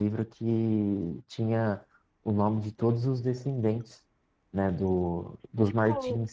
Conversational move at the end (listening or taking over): taking over